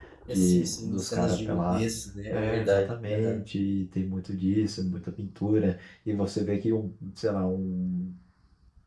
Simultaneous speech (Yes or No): Yes